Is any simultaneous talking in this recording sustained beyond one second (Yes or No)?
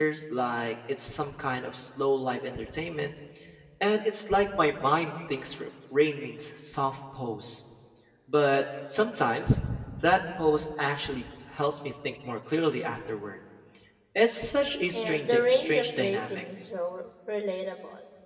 Yes